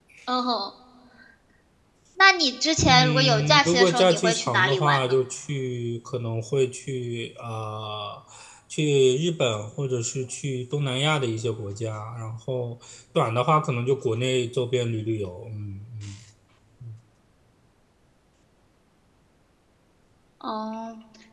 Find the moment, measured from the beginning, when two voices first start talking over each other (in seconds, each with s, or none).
2.8 s